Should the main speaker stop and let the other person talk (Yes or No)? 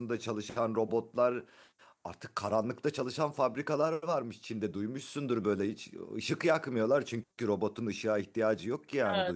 Yes